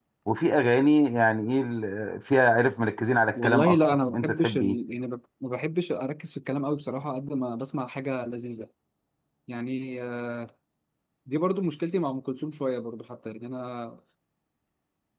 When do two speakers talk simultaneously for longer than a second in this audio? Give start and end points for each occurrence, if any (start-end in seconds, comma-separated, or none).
3.4-4.8